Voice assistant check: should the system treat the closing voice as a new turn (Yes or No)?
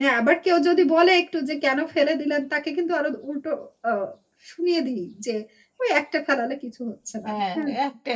Yes